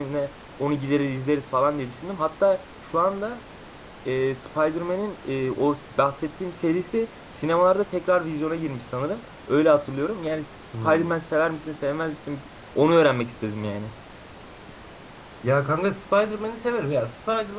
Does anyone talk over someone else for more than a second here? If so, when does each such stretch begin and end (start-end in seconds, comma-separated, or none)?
none